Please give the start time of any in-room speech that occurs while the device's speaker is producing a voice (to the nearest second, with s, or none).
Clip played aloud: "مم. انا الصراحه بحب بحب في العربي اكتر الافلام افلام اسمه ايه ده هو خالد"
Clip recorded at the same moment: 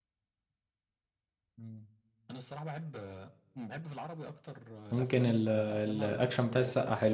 5 s